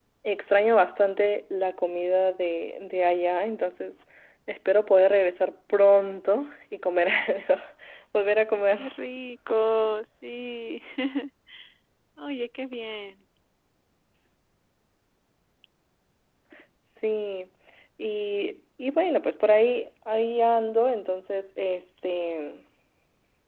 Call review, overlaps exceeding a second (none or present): none